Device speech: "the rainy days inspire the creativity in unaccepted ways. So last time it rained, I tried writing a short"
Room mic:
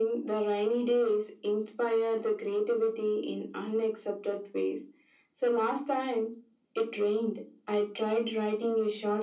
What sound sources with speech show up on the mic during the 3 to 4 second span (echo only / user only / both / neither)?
echo only